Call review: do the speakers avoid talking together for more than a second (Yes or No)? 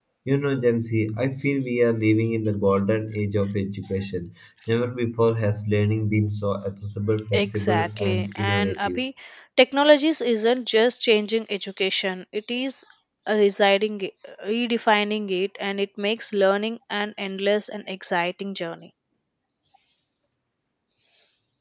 No